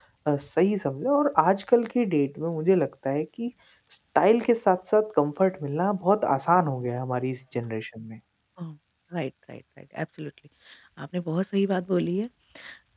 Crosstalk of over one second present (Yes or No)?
No